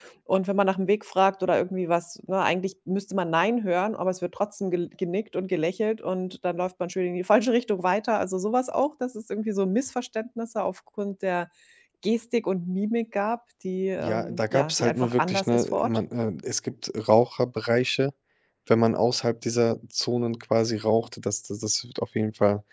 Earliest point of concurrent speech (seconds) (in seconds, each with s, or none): 14.0 s